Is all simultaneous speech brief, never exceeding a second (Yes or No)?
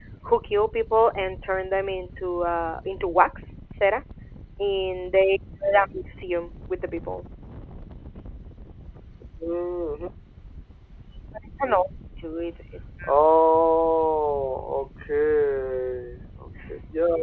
Yes